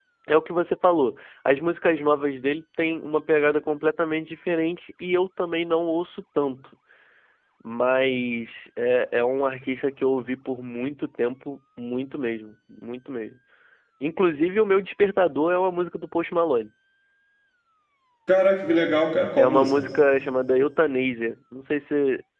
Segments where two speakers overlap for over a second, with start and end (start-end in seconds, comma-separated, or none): none